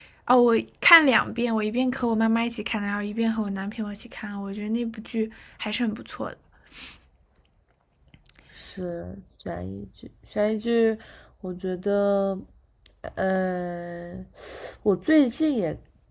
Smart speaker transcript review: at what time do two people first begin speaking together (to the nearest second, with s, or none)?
none